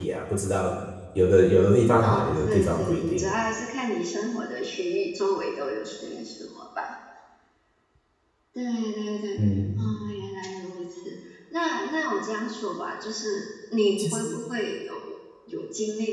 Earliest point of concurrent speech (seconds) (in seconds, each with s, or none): 2.0 s